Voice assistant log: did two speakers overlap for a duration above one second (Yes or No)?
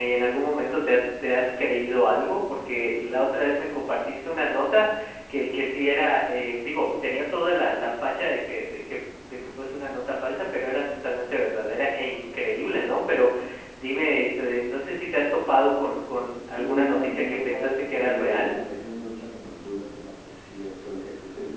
Yes